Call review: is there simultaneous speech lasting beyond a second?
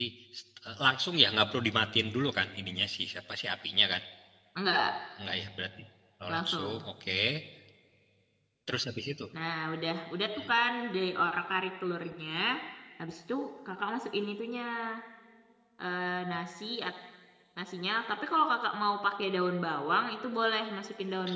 No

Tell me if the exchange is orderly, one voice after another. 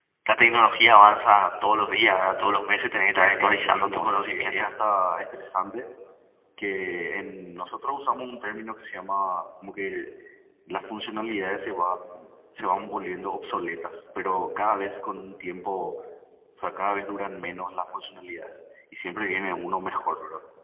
No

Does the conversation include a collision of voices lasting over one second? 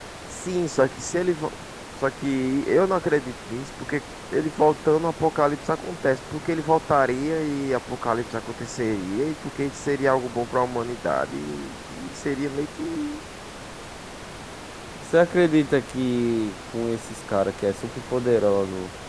No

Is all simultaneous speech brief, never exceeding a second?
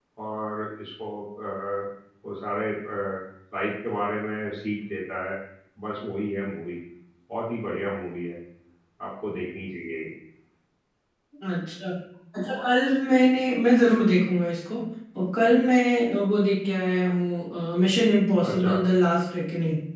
Yes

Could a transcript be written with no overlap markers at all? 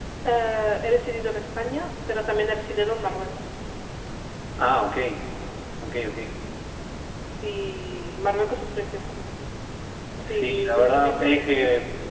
No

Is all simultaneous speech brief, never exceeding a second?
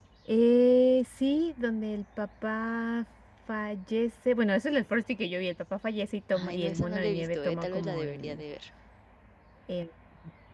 No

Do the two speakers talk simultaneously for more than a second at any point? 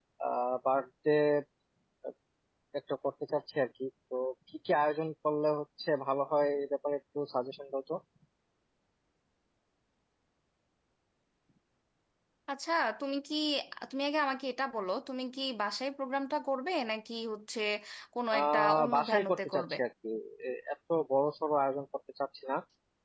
Yes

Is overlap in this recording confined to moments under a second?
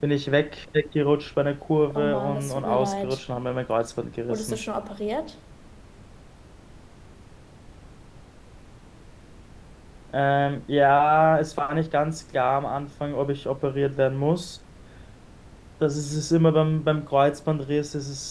No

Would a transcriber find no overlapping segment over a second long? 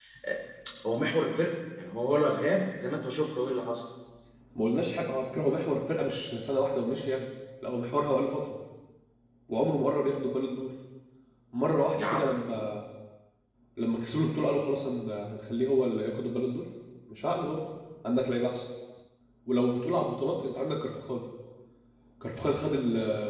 Yes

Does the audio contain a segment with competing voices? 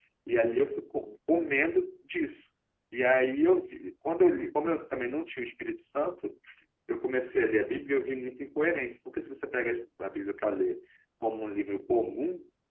No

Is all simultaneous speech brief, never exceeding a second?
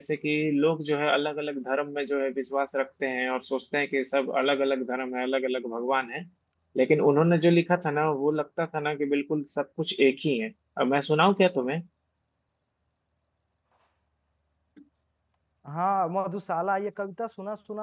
Yes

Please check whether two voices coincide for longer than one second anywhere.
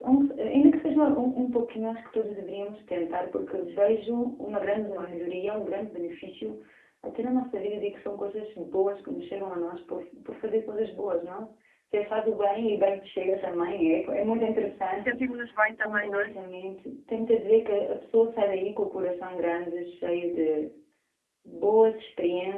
No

